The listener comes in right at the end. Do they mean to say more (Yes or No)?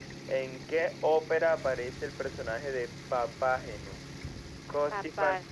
No